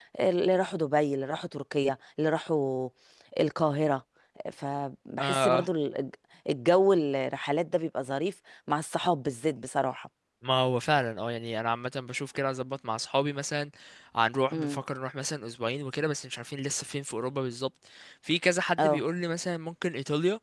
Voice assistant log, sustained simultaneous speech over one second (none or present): none